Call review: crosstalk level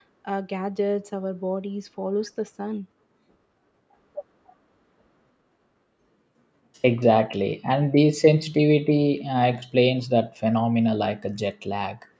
none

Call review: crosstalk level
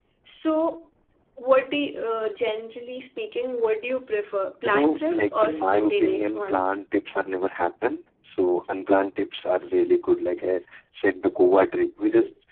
present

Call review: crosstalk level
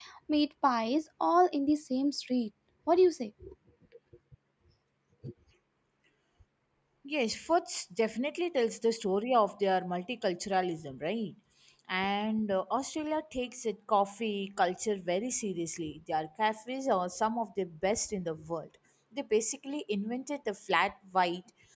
none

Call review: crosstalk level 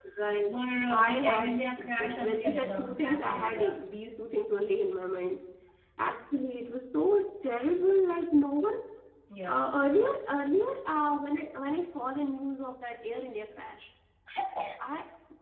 present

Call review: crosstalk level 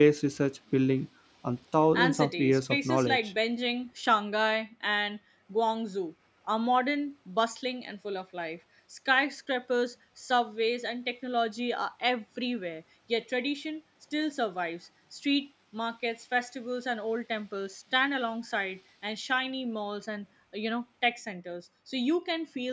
present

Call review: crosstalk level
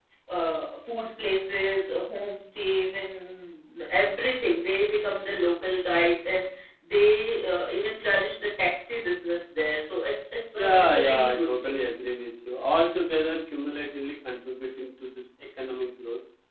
present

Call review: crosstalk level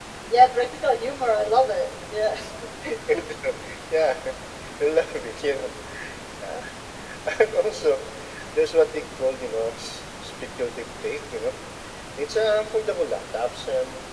none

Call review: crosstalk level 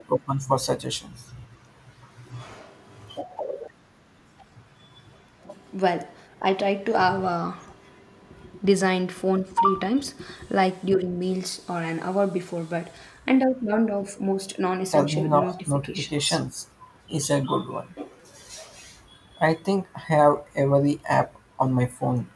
present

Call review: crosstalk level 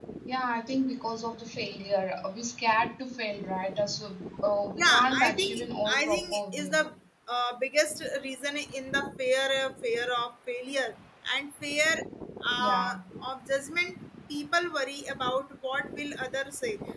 present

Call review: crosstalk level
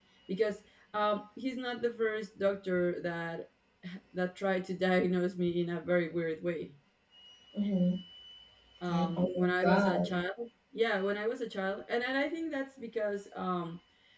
present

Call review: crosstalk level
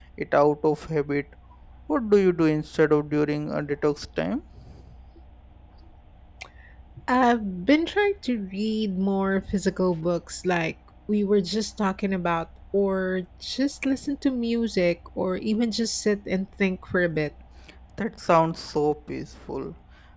none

